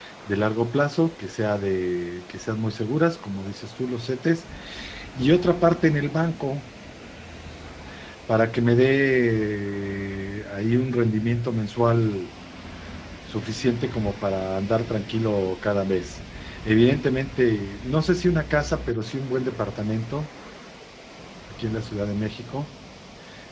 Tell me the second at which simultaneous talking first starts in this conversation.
none

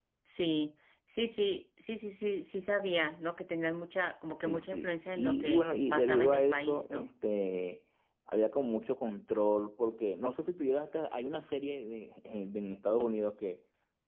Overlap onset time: 4.4 s

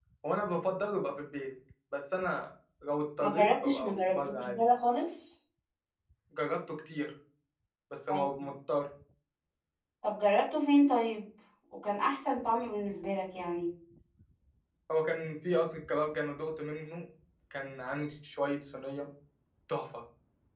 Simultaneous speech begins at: 3.2 s

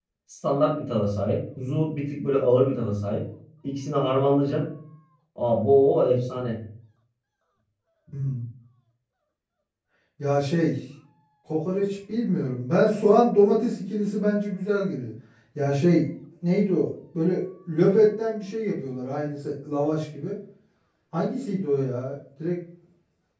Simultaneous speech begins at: none

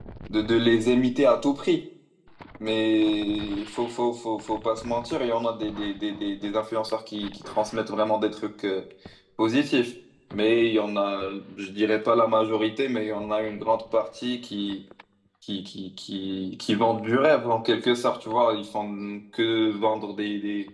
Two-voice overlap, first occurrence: none

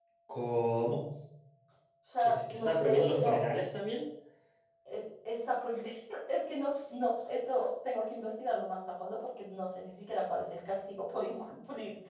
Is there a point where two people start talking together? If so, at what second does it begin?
2.2 s

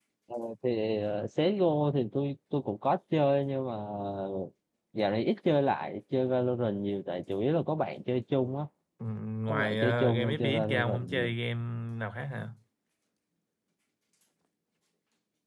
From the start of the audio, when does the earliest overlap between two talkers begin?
9.5 s

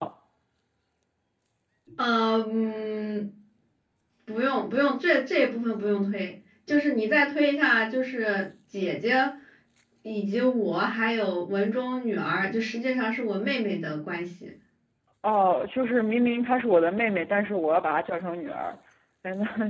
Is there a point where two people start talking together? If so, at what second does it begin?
none

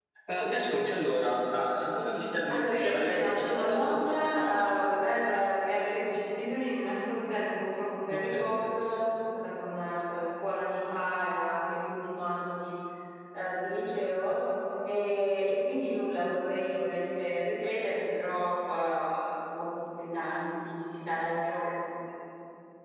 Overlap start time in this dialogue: 2.5 s

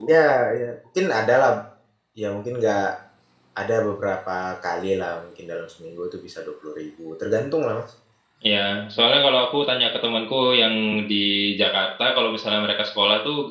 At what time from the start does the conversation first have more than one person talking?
none

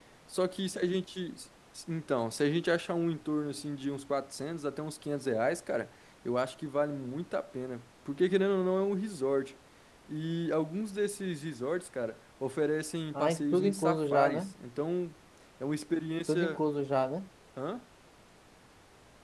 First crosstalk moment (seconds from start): 13.1 s

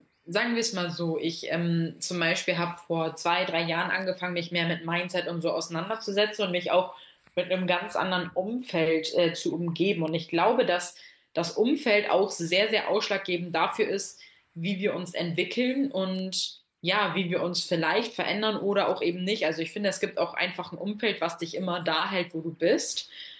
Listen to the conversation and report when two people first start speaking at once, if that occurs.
none

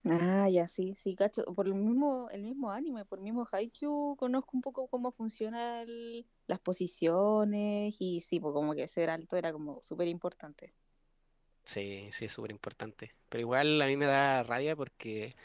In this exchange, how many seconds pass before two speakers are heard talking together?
none

